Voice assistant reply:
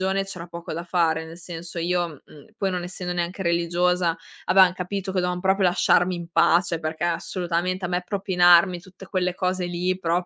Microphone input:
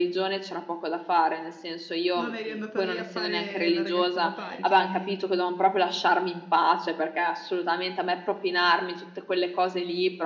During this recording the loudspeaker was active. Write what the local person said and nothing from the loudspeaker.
non eri andata lì a fare la ragazza alla pari chiarament

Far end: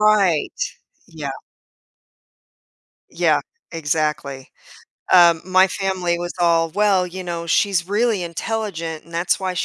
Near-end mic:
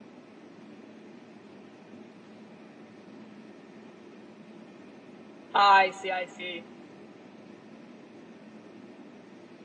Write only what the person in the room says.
I see, I see.

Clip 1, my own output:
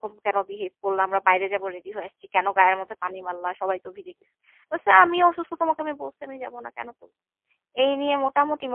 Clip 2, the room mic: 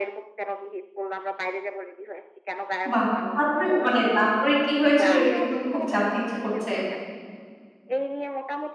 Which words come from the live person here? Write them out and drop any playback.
বাহ! তারপরে মানে তারপরে কি হয়েছিল? এটা কিন্তু খুব জানতে ইচ্ছে করছে।

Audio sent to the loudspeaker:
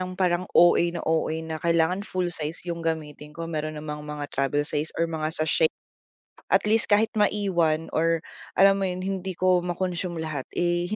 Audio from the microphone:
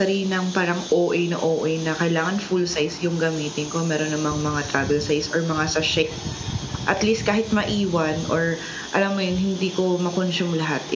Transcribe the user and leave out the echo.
none

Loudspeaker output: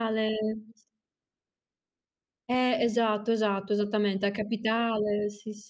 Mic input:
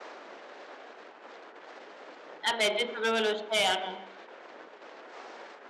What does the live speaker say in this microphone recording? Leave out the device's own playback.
Eh, beh, tu hai detto proprio l'oceano.

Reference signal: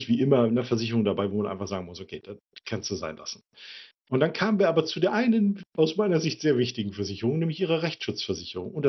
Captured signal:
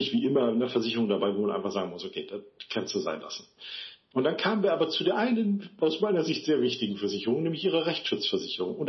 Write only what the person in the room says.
none

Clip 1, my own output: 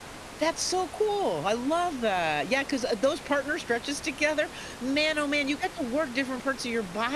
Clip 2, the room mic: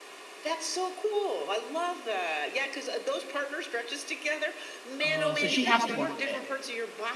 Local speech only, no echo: Oh, so she has to work at it.

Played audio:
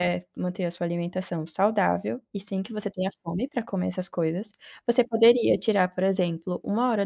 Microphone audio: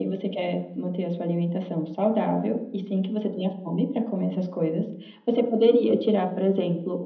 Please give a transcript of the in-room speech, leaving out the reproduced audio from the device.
none

